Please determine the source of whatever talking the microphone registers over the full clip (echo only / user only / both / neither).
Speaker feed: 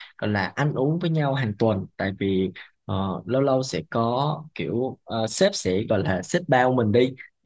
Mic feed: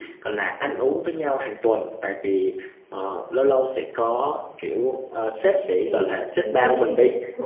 both